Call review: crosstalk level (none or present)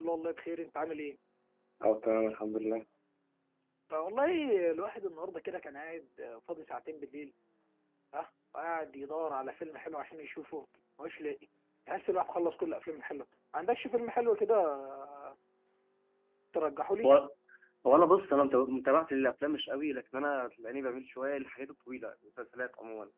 none